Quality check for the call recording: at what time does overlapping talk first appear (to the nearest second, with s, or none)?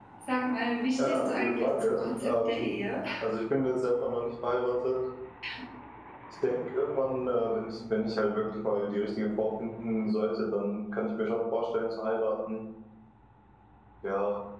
1 s